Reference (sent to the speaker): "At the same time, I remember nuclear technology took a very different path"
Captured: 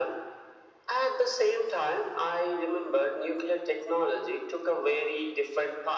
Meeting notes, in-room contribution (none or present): none